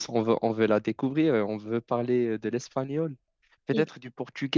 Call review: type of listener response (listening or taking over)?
listening